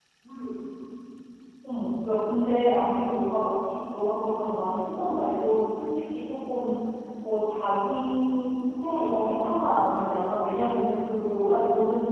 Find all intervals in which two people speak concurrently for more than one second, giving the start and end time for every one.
none

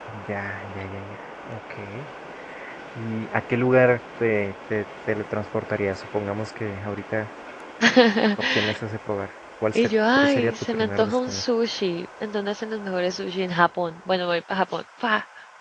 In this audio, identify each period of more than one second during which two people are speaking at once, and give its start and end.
9.8-11.4

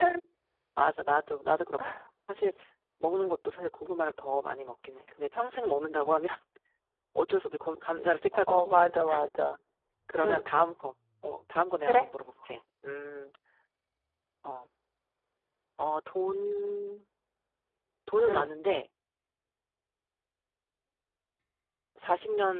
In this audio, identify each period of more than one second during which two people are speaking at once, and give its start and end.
none

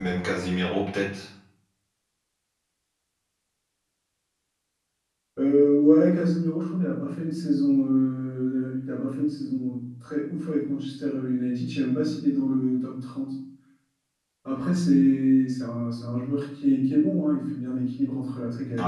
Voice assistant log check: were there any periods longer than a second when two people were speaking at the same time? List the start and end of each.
none

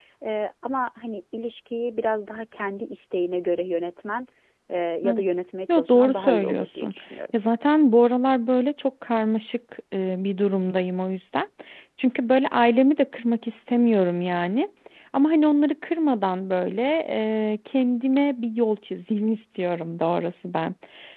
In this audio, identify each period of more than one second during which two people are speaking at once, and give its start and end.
5.7-6.9

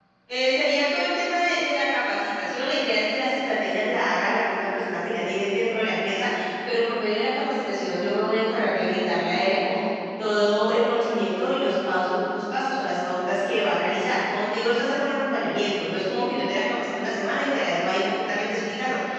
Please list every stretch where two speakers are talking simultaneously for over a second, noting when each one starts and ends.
none

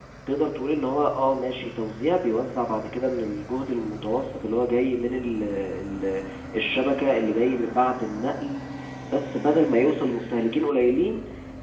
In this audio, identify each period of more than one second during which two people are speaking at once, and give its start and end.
none

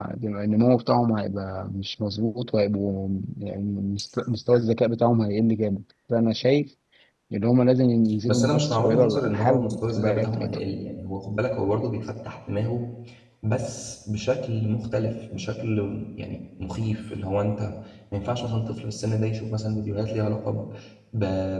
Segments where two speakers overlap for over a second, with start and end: 8.3-10.6

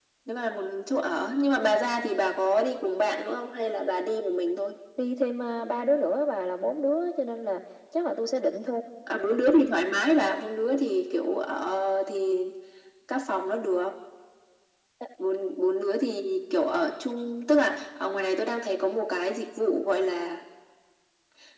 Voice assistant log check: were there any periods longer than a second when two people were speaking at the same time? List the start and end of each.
none

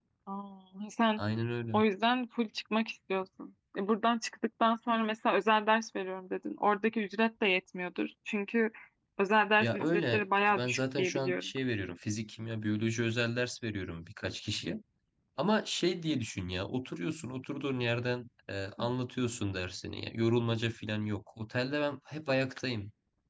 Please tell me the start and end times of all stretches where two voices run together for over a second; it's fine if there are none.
9.6-11.5

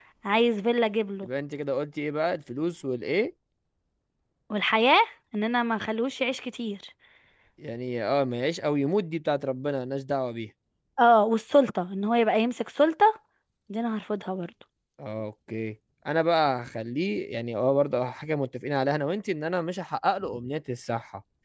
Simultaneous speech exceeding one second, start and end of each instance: none

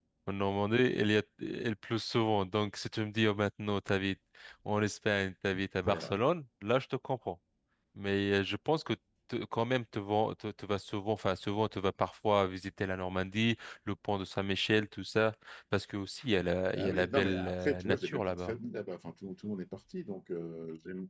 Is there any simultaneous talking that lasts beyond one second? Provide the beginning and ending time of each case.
16.8-18.5

